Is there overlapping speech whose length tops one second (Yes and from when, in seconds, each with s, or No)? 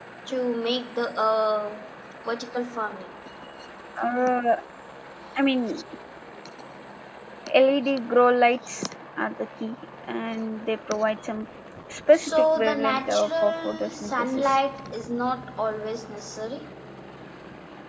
Yes, from 12.1 s